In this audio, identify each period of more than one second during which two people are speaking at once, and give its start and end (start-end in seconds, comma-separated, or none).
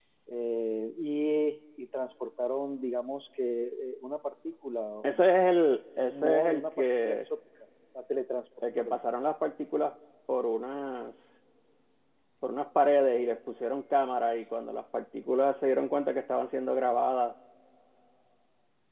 6.0-7.2